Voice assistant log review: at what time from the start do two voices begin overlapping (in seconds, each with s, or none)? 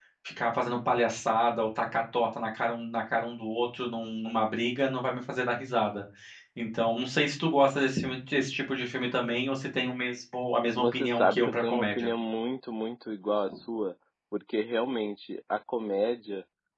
10.8 s